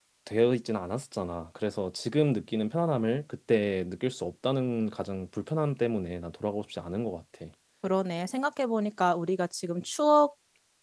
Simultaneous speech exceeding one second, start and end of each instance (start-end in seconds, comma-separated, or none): none